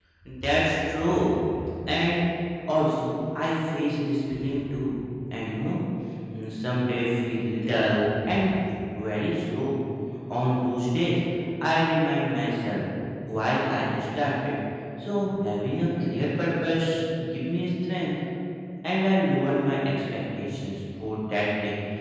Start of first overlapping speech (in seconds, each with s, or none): none